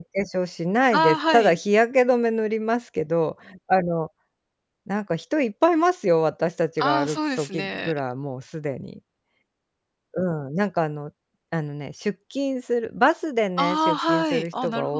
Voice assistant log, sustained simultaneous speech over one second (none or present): present